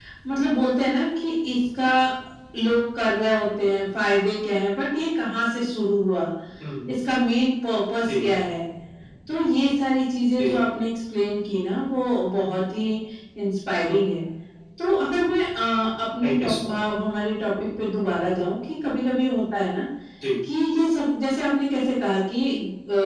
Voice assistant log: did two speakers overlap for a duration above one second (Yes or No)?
No